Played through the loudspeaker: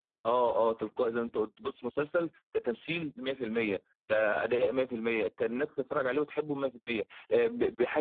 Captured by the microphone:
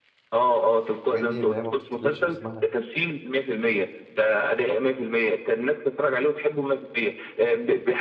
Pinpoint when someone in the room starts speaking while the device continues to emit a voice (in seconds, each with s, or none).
1.1 s